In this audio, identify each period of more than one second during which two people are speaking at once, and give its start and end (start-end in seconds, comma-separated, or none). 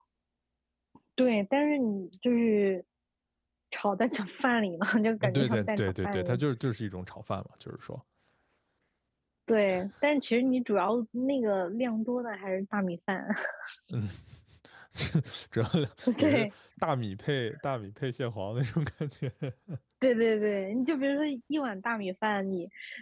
5.2-6.4